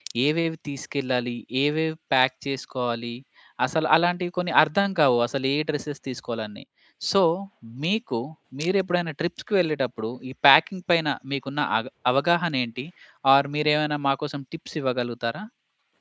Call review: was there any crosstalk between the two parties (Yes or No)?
No